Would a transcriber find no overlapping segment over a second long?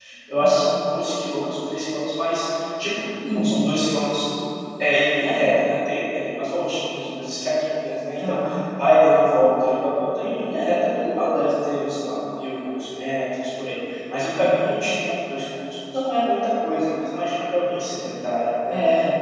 Yes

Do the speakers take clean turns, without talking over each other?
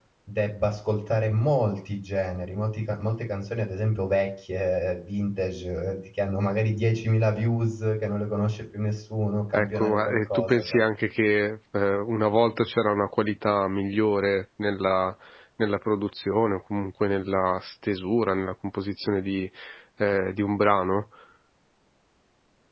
No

